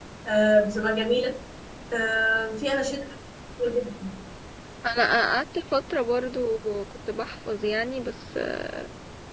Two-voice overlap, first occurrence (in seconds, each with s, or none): none